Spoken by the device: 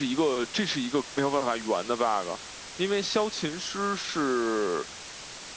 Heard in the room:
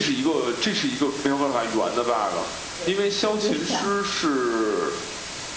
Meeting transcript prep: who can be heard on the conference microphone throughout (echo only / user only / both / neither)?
both